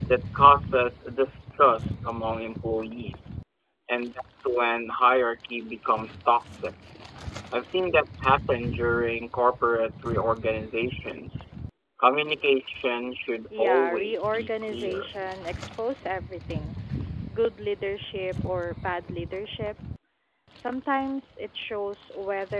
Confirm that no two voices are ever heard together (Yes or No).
No